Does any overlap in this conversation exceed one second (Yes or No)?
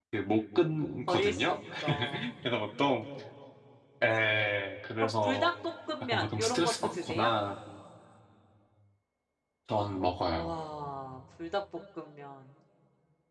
Yes